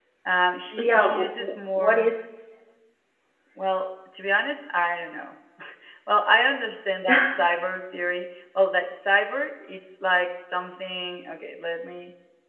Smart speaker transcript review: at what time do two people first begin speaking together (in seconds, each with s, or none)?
0.8 s